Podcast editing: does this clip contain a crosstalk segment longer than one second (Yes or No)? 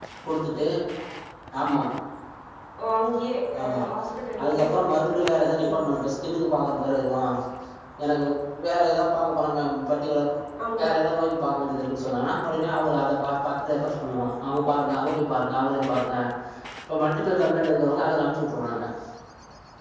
Yes